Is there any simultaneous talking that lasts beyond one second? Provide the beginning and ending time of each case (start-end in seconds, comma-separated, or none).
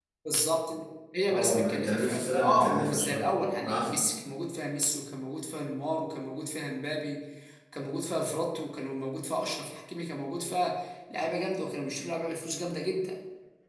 1.3-4.1